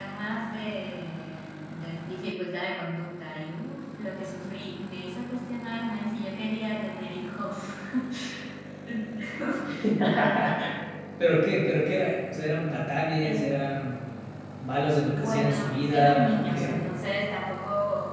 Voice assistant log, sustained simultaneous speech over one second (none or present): present